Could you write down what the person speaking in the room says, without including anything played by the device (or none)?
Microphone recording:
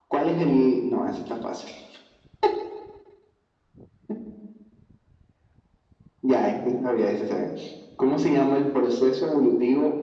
none